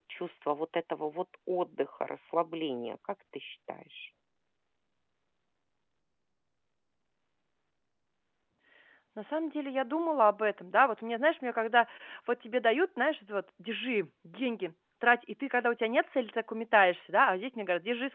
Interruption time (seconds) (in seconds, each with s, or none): none